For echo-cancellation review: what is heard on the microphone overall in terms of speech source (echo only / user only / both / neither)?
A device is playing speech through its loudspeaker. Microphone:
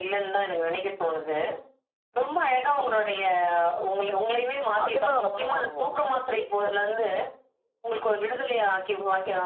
both